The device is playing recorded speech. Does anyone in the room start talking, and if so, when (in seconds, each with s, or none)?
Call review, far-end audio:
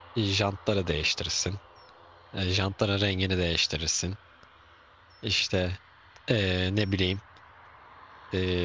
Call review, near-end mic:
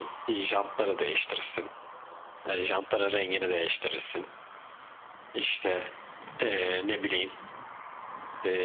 none